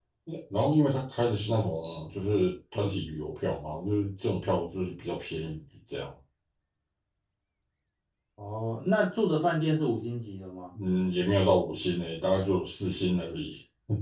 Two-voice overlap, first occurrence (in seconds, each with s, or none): none